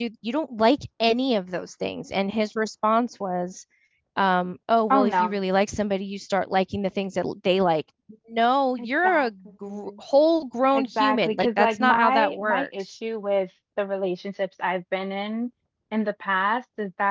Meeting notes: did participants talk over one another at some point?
Yes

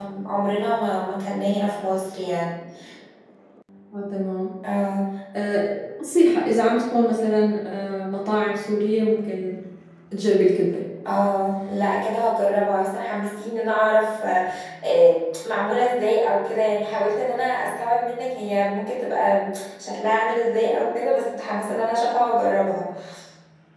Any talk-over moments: No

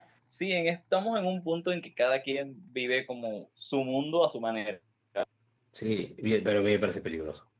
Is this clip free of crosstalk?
Yes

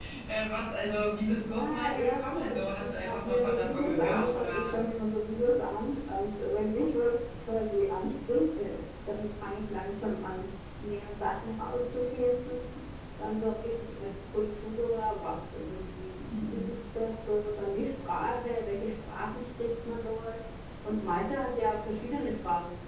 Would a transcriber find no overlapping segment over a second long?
No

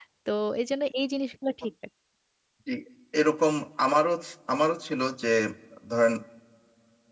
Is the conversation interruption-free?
Yes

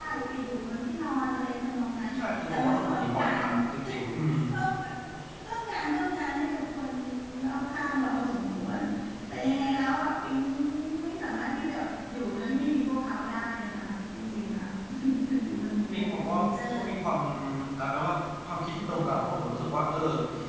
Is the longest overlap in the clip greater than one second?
Yes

